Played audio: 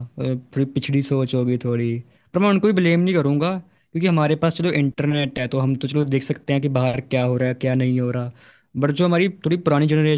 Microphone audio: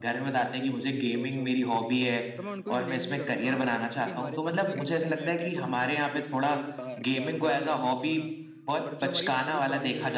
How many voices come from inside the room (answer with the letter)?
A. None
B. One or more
B